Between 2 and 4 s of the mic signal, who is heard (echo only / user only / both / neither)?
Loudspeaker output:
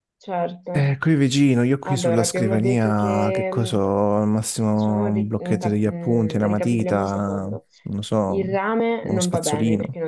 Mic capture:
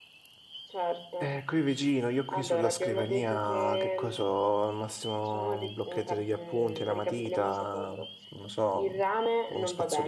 echo only